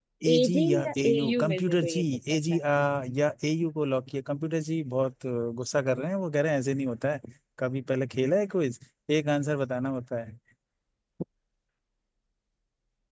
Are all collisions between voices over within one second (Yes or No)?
No